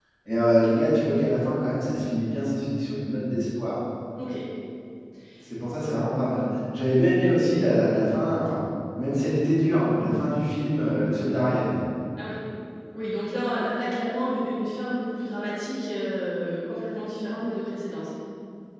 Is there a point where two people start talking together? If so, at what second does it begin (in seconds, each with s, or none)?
none